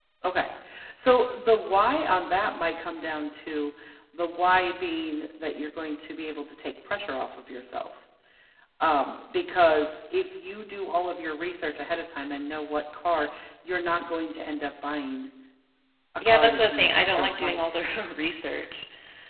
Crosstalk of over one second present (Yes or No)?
Yes